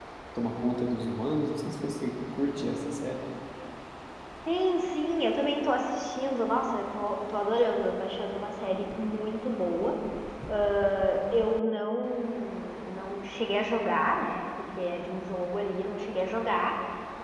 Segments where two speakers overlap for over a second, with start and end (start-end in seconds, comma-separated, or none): none